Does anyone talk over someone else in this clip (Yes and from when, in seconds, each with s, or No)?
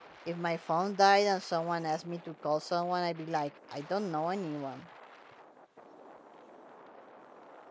No